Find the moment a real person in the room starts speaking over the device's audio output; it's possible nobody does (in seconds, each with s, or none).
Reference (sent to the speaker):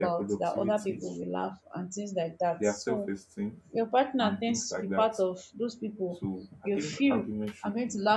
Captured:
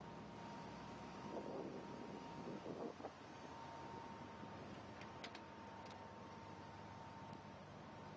none